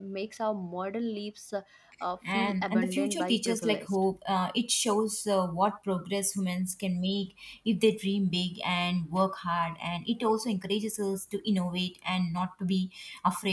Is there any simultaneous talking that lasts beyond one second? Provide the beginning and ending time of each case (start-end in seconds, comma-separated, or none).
2.3-4.0